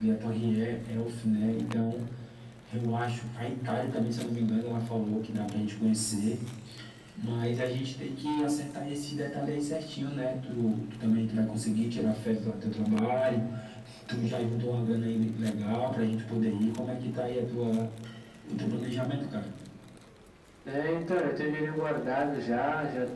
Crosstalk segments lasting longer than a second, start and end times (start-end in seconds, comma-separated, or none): none